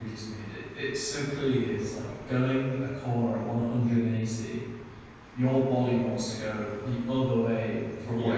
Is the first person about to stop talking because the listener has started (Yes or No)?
No